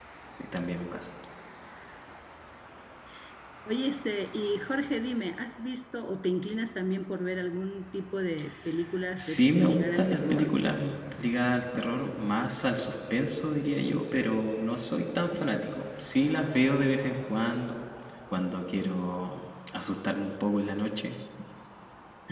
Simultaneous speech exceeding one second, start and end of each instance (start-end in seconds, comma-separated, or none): 9.2-10.5